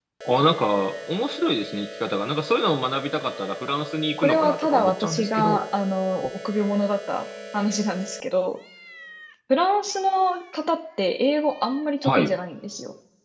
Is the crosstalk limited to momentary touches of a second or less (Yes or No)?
No